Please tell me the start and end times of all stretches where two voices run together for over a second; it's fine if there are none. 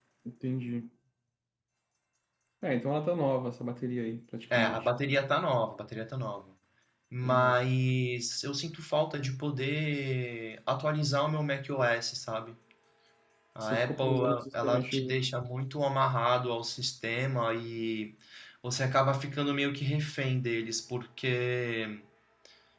13.6-15.2

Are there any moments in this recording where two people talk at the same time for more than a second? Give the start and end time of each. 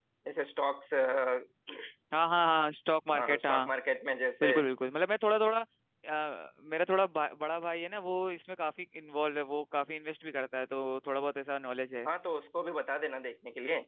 none

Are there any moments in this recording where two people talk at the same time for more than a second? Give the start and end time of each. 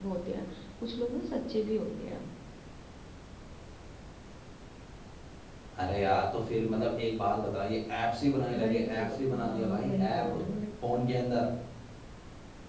8.6-10.3

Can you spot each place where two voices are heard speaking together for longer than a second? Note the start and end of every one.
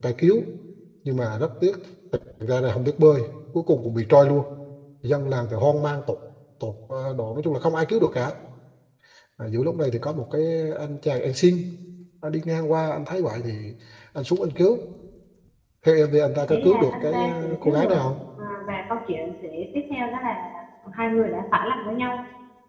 16.4-18.1

